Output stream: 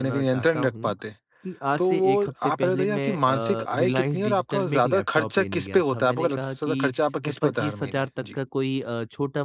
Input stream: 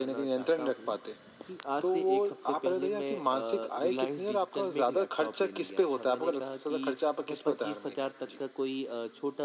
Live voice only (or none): none